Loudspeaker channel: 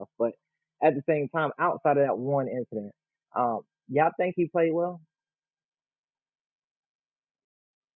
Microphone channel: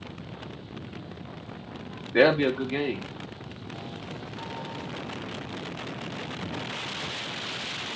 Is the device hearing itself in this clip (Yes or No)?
No